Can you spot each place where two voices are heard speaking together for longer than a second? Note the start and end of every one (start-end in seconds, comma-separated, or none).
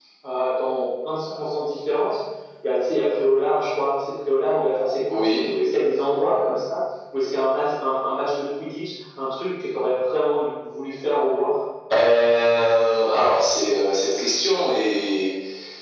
none